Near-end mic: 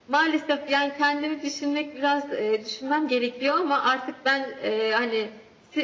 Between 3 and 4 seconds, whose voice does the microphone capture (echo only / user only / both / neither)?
echo only